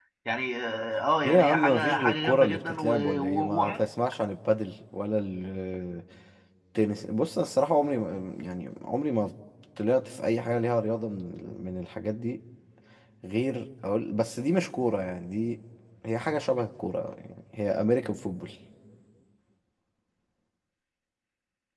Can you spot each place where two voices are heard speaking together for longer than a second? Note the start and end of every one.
1.2-3.8

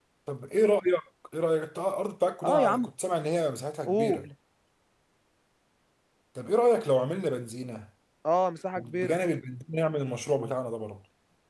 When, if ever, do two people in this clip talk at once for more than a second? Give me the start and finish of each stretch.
none

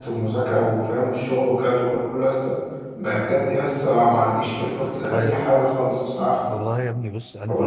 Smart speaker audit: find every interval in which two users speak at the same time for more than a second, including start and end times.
none

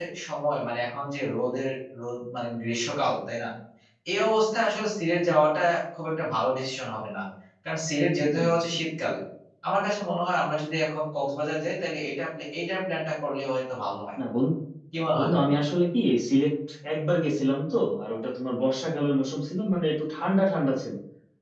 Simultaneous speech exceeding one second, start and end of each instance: none

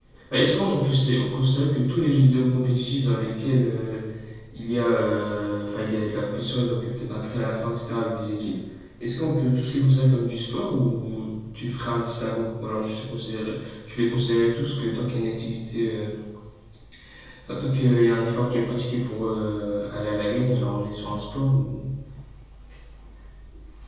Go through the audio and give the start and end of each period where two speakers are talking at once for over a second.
none

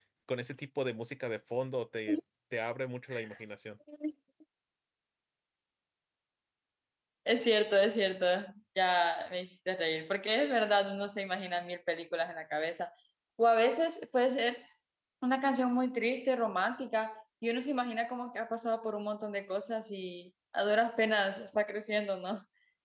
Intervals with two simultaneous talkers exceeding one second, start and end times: none

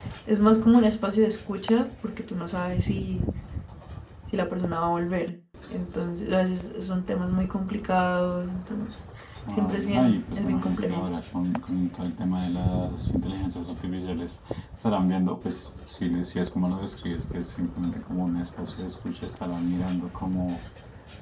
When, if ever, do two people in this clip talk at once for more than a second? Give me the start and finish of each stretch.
9.6-11.1

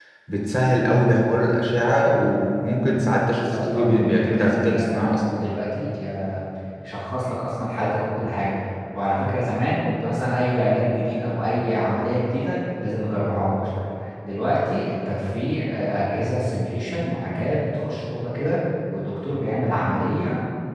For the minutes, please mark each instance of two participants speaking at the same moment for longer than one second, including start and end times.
3.4-5.2

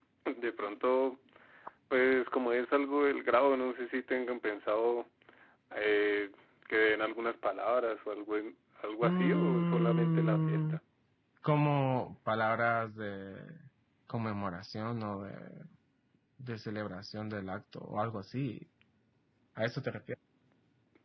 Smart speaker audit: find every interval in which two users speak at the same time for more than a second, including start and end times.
9.0-10.6

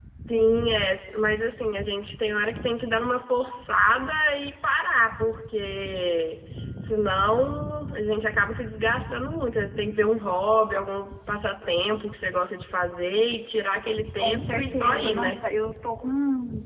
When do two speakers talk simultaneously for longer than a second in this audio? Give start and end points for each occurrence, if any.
14.2-15.4

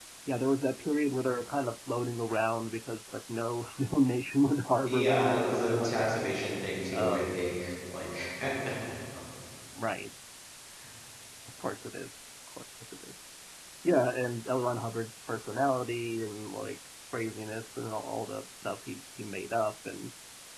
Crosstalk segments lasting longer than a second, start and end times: 4.9-6.2

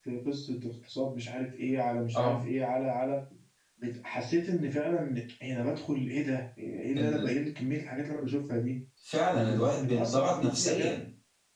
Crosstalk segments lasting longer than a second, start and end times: 9.3-11.0

